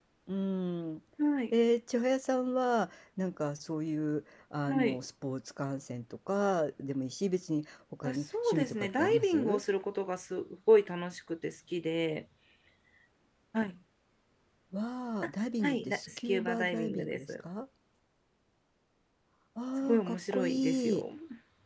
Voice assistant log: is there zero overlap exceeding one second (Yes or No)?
No